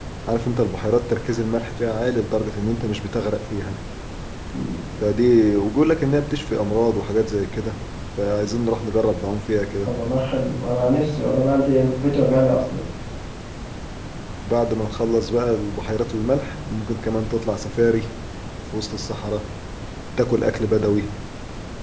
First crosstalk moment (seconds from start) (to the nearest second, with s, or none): none